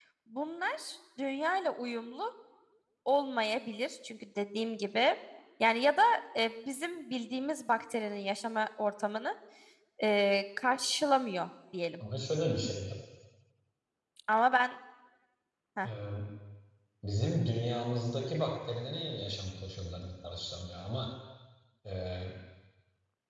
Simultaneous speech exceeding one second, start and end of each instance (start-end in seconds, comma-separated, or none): none